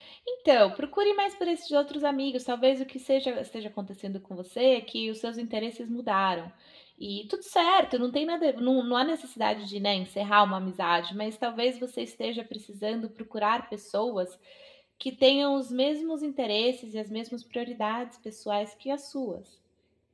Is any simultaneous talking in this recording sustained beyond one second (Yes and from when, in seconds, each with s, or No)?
No